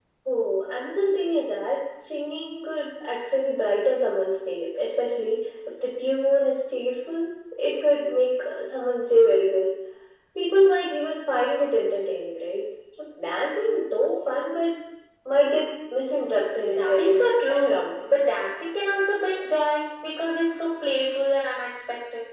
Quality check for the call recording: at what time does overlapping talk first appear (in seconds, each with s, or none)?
16.6 s